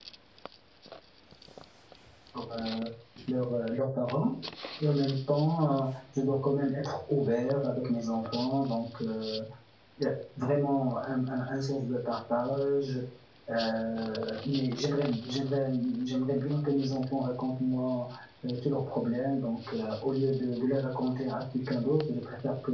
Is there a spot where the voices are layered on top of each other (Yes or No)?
No